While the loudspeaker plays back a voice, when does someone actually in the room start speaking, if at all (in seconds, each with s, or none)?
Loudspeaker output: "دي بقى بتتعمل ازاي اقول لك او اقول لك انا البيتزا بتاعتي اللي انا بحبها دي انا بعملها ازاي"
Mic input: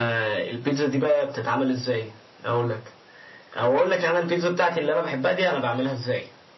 none